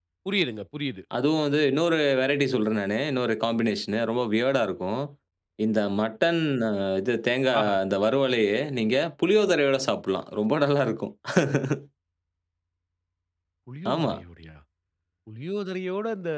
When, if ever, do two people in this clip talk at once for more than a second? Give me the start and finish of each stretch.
none

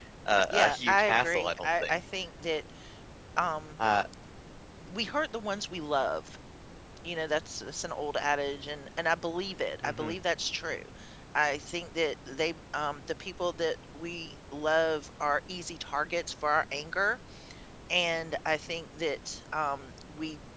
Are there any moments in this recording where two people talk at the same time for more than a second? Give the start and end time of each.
0.5-2.0

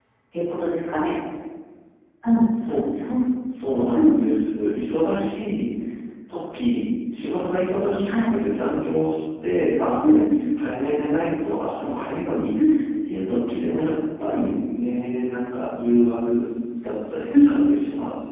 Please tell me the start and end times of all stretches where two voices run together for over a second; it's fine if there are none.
none

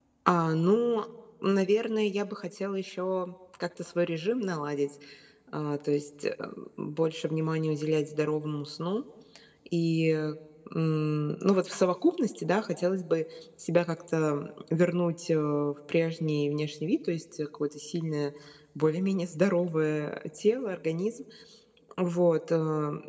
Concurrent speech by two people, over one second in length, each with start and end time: none

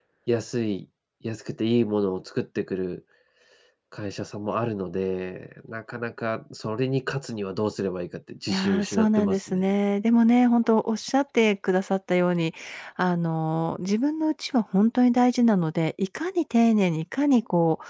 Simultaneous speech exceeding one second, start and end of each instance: 8.5-9.7

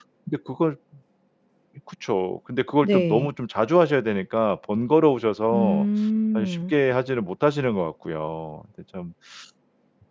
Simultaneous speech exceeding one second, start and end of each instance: none

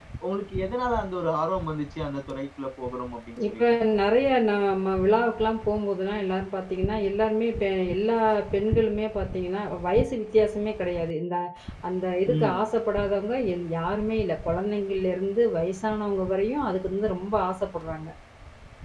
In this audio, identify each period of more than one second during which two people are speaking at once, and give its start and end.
none

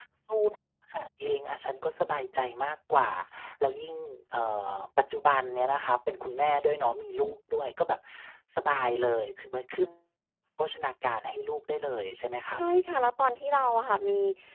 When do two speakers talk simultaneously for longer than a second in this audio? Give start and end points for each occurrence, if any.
none

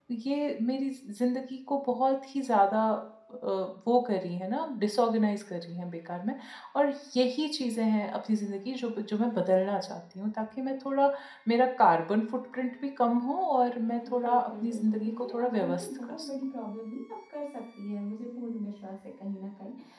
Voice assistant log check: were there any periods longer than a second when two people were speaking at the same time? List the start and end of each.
14.1-16.3

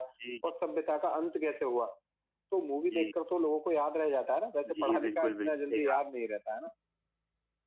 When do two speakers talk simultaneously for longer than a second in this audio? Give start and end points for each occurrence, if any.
4.6-6.0

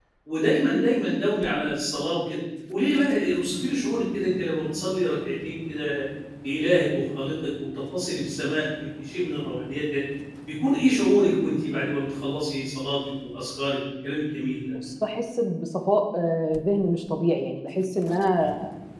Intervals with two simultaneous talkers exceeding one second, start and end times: none

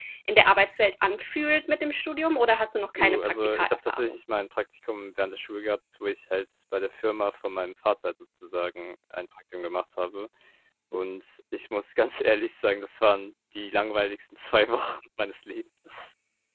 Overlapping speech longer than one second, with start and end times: 3.0-4.2

